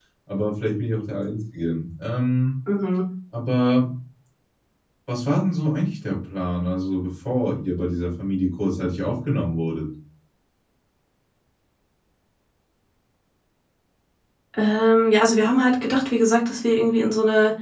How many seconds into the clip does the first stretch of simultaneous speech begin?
none

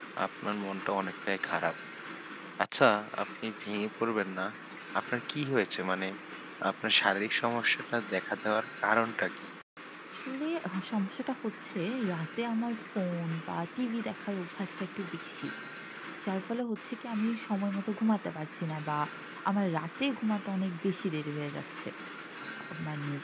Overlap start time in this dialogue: none

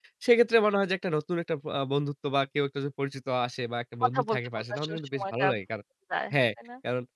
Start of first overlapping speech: 4.1 s

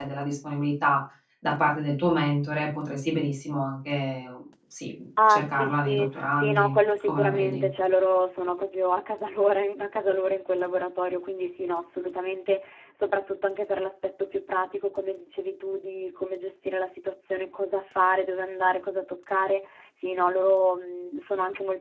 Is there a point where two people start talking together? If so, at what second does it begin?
5.2 s

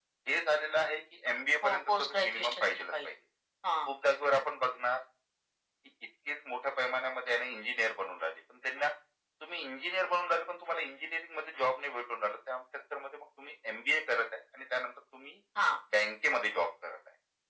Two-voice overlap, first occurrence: 1.6 s

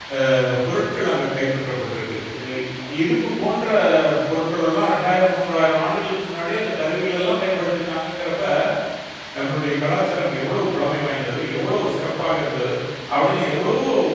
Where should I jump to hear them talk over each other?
none

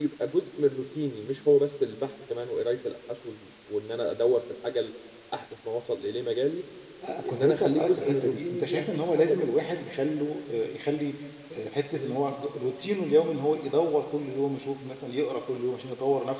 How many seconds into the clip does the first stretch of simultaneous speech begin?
7.3 s

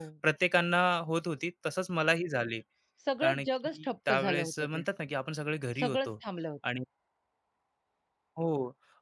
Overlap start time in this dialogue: 3.2 s

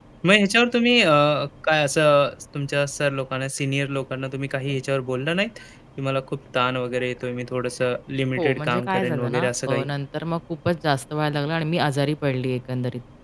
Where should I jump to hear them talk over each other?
8.4 s

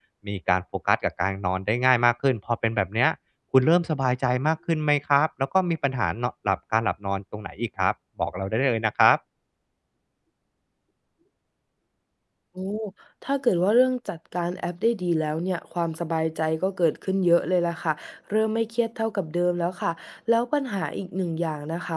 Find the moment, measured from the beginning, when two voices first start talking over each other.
none

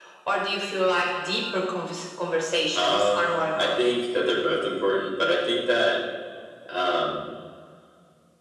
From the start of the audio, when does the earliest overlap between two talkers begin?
2.7 s

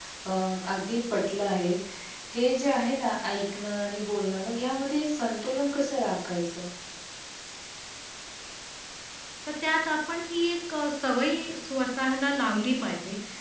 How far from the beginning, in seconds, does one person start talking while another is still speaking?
none

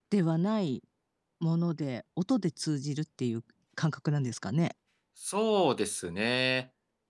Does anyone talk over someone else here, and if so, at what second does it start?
none

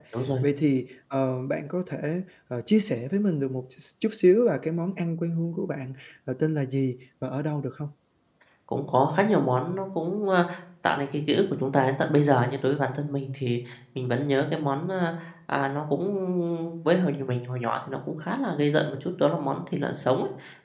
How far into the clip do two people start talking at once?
none

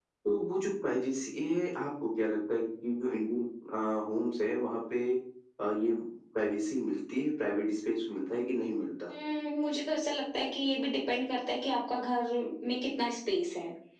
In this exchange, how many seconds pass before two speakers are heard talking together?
none

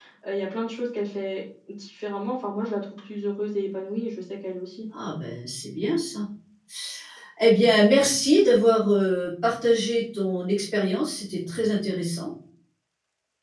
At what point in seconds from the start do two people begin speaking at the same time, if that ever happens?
none

